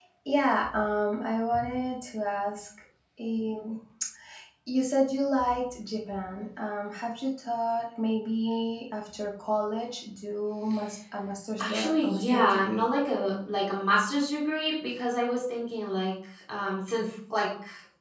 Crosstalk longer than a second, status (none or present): present